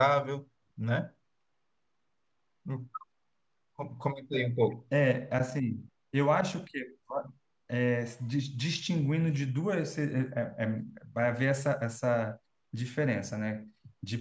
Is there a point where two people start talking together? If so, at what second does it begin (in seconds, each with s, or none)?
none